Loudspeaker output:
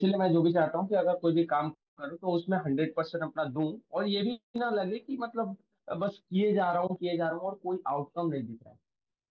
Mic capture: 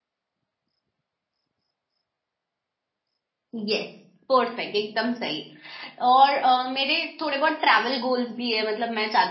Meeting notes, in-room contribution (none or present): present